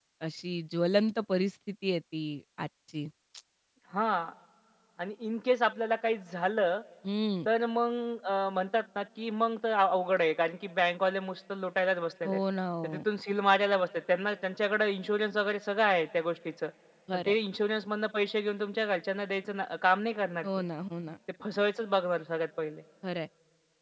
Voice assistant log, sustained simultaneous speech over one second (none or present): none